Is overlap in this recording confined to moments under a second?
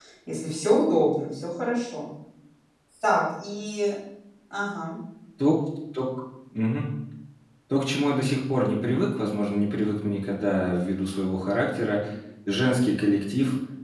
Yes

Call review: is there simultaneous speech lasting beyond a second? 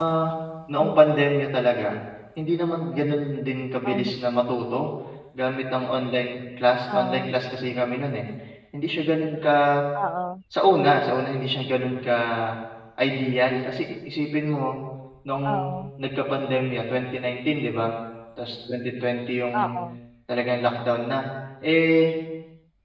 No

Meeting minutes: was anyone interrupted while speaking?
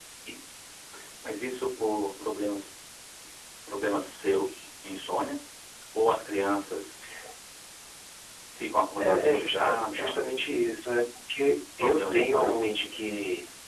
Yes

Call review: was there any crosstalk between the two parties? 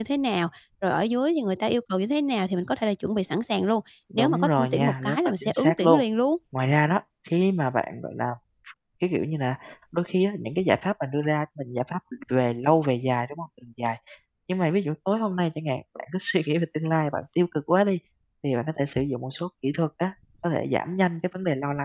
Yes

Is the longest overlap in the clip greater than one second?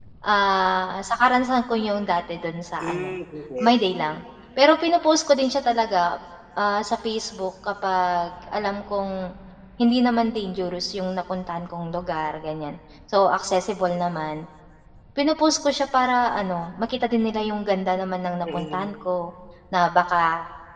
No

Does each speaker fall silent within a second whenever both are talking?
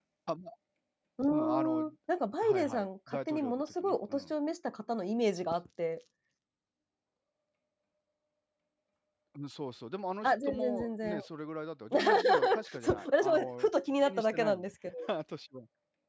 No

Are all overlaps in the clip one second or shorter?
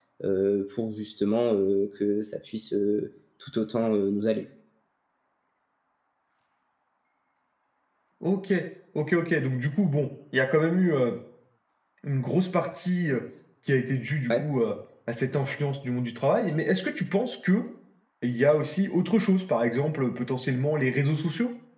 Yes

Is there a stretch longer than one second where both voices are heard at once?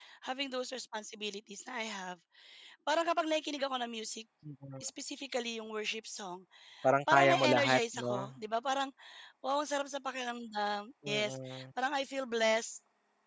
Yes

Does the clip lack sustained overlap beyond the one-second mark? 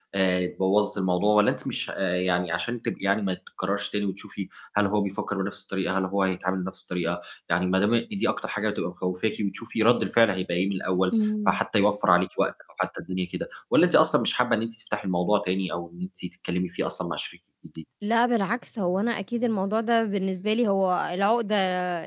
Yes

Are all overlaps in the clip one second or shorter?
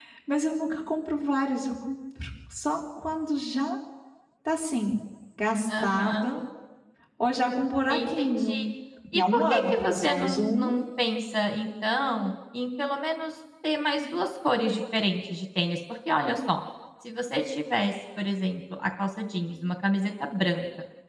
No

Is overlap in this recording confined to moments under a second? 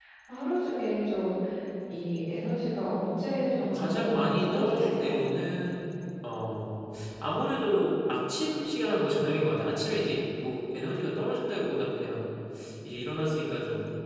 No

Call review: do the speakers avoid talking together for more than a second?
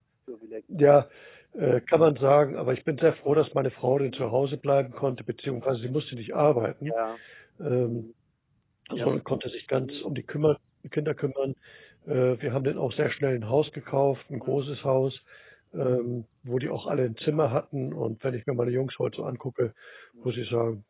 Yes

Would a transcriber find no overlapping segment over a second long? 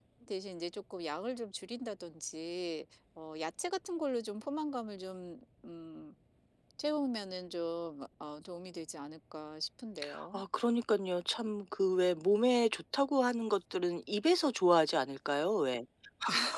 Yes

